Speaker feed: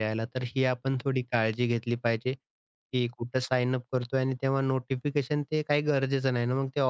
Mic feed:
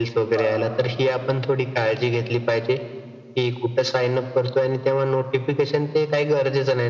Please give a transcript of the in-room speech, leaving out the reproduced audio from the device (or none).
बरोबर.